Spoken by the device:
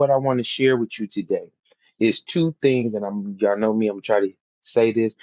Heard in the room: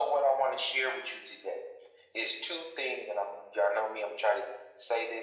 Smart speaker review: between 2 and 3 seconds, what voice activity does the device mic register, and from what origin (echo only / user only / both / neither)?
echo only